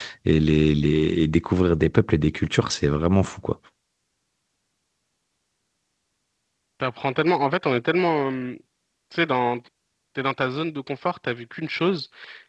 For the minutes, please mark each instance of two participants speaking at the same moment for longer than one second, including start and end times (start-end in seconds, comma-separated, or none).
none